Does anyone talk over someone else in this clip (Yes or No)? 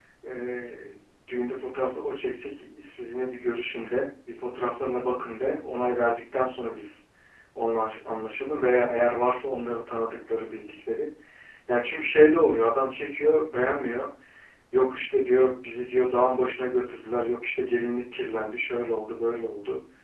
No